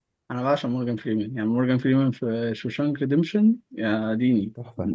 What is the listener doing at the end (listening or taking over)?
taking over